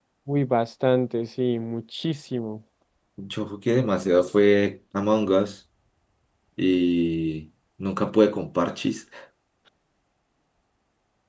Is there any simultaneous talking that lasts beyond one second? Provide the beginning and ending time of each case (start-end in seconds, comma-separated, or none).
none